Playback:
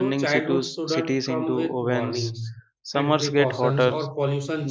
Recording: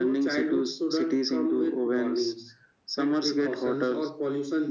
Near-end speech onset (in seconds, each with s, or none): none